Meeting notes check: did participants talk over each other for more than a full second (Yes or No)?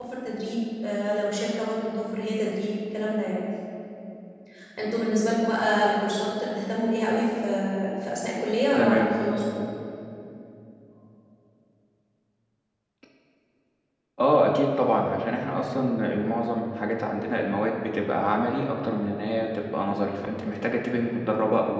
No